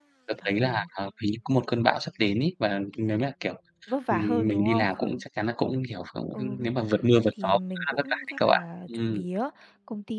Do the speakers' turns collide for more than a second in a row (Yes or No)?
Yes